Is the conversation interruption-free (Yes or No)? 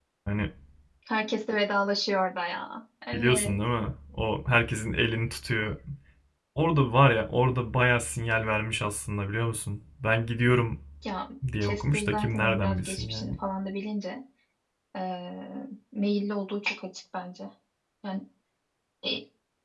No